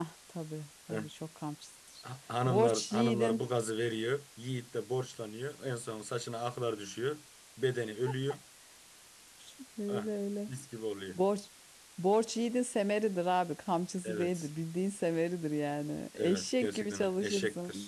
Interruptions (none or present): present